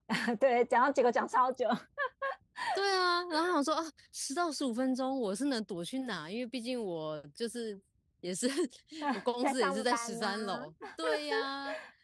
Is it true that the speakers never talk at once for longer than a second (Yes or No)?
No